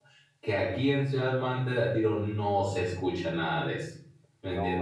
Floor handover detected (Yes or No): Yes